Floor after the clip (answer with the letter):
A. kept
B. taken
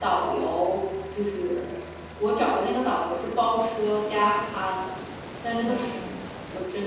A